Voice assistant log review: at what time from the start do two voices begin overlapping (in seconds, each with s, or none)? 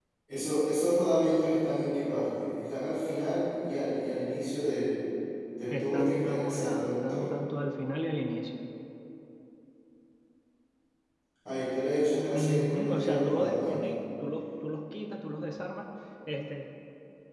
5.7 s